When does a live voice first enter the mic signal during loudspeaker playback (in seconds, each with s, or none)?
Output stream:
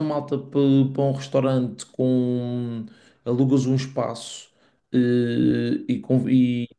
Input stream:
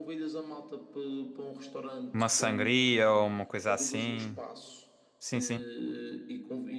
2.1 s